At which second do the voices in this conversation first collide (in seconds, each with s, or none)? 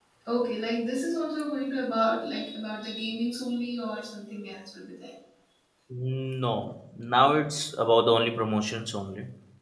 none